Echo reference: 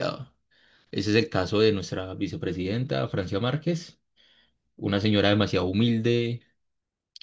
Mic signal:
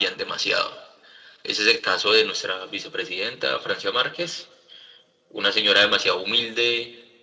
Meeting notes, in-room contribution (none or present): none